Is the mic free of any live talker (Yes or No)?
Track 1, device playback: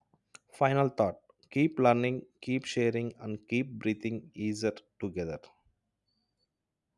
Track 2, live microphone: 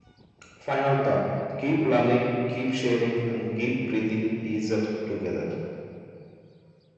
Yes